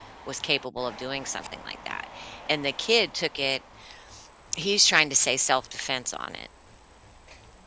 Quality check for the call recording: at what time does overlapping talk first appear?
none

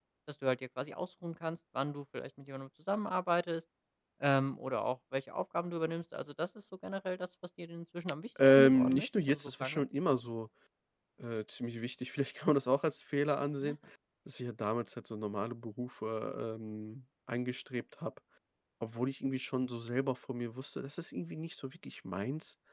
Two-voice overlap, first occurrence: 8.4 s

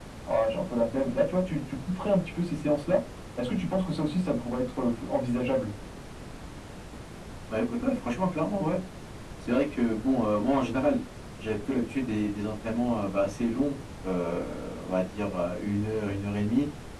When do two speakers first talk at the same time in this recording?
none

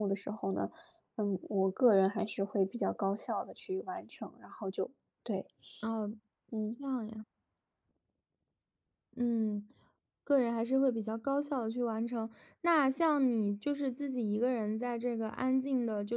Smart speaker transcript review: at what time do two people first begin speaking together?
none

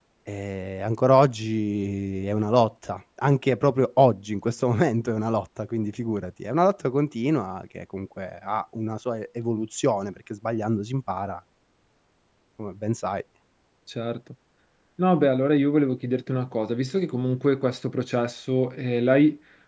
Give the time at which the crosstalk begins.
none

